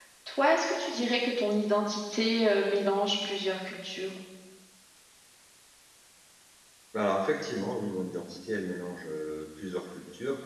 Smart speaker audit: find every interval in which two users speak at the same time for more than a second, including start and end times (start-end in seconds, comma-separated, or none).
none